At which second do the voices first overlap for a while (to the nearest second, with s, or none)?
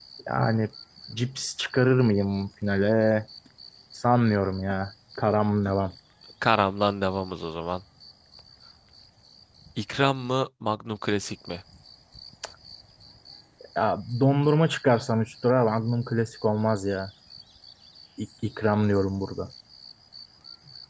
none